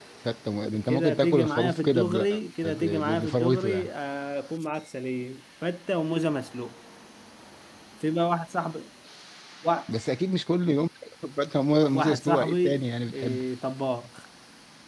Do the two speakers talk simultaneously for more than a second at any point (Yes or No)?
Yes